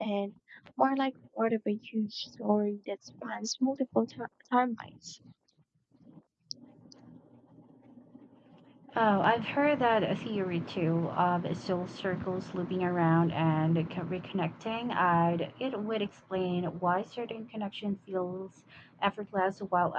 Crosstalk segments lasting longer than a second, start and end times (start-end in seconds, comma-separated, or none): none